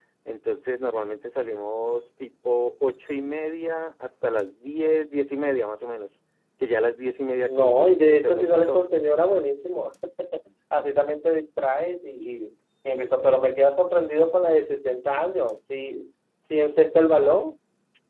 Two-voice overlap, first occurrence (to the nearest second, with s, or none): 7 s